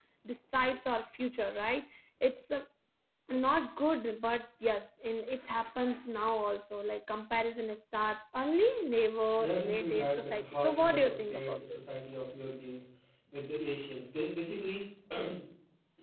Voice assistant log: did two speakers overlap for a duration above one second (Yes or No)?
Yes